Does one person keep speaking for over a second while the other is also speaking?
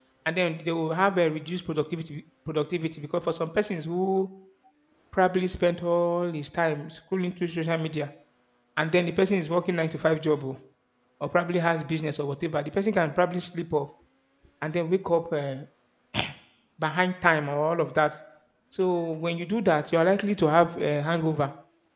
No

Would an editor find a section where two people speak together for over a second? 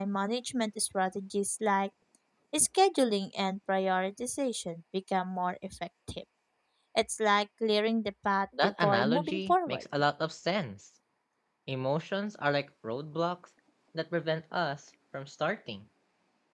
Yes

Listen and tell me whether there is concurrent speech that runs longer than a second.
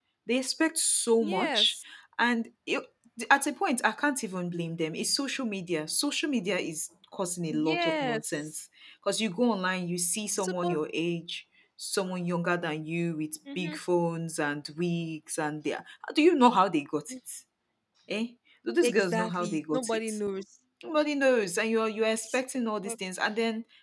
Yes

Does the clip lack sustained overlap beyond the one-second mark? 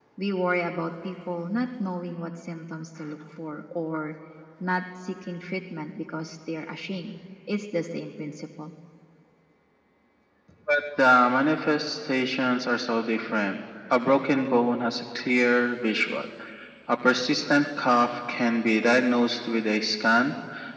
Yes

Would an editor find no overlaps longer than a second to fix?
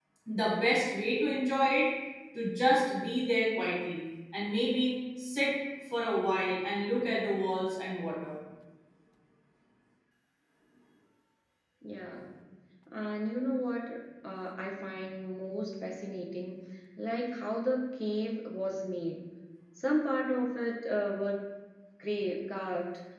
Yes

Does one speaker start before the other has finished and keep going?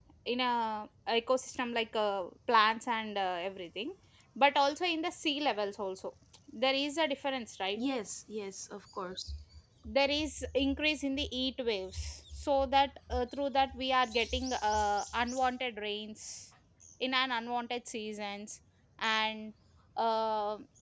No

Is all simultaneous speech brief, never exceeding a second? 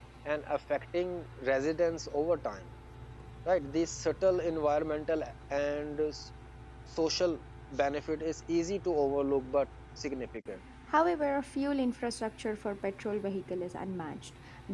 Yes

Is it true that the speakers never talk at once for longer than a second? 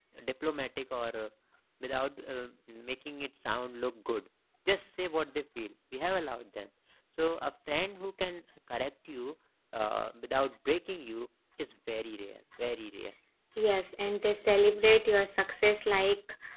Yes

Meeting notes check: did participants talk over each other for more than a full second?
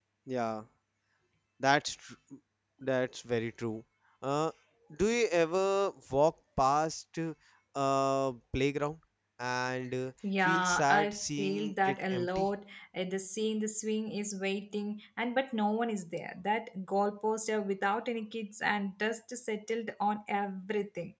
Yes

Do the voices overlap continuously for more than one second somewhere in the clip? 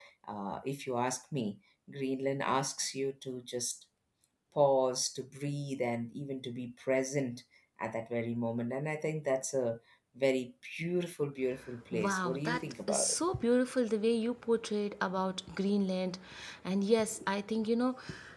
Yes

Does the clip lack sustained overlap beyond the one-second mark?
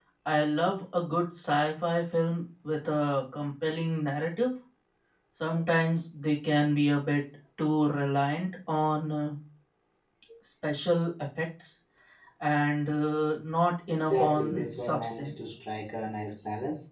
No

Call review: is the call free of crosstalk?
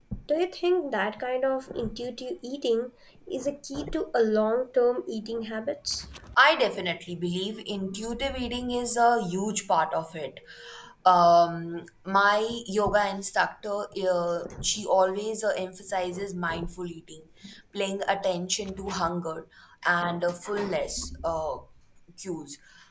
Yes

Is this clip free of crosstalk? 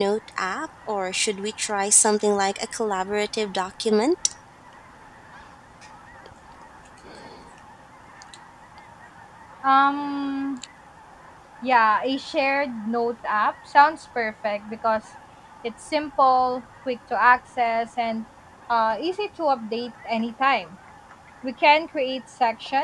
Yes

